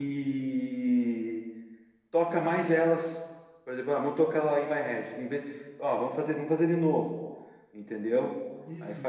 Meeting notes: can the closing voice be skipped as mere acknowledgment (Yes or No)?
No